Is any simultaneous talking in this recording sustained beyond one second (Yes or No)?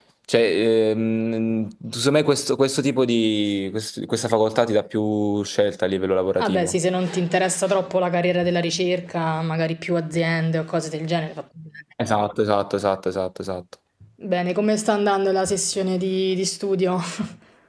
No